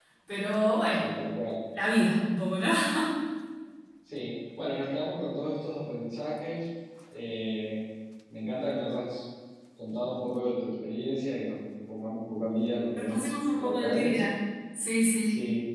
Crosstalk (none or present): present